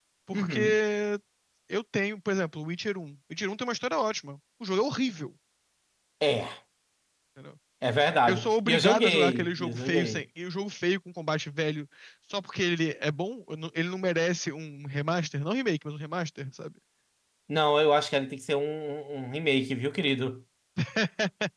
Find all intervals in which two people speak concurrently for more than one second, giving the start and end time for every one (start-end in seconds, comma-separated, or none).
8.3-10.2